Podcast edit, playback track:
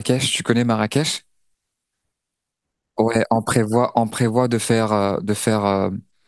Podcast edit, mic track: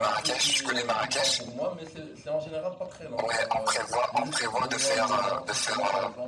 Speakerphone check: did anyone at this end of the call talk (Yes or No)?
Yes